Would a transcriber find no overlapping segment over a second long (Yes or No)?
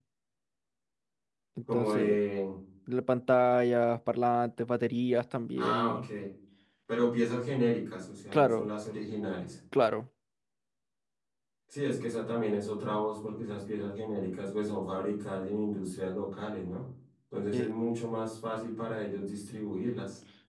Yes